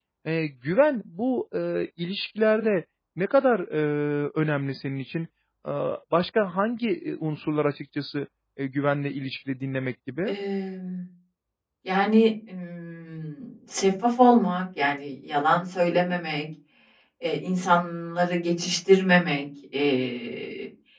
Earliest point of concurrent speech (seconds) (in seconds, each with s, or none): none